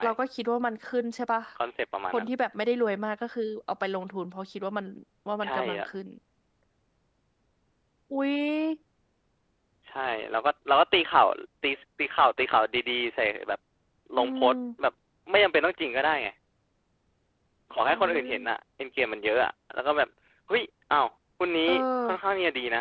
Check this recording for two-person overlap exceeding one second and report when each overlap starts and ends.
none

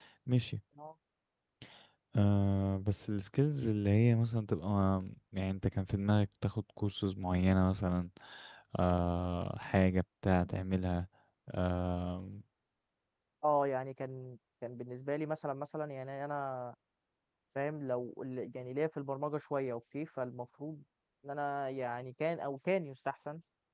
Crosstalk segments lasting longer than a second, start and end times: none

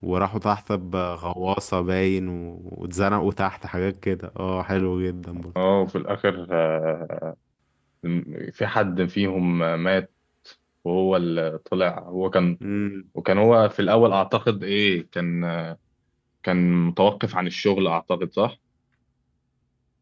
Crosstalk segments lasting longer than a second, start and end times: none

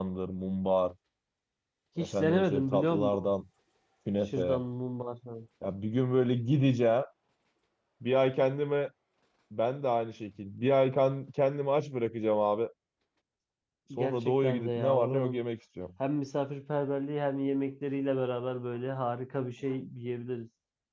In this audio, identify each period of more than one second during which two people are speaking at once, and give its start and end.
2.0-3.3, 14.0-15.4

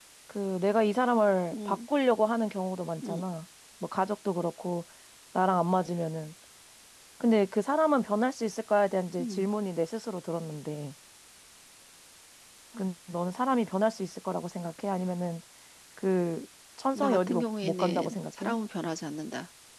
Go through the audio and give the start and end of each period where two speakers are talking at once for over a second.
16.9-18.6

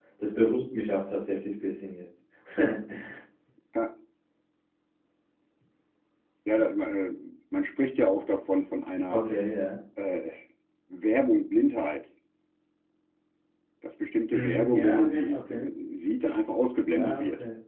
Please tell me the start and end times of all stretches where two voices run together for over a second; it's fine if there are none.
14.3-15.7

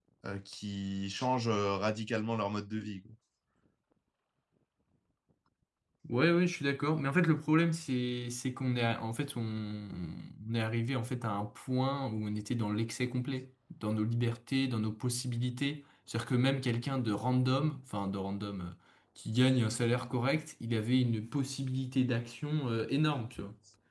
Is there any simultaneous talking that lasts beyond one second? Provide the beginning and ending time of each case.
none

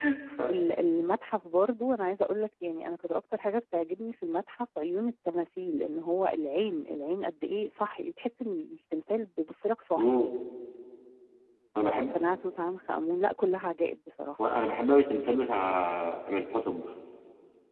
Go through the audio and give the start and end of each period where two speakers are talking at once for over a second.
none

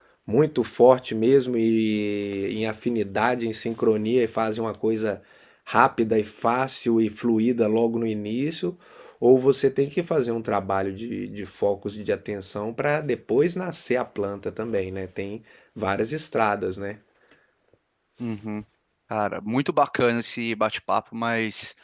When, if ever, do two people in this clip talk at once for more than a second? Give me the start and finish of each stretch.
none

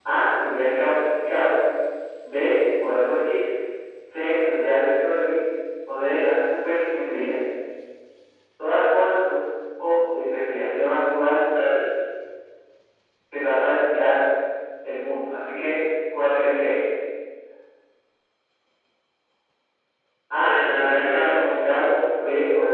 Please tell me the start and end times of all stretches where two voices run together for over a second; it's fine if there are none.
20.4-22.2

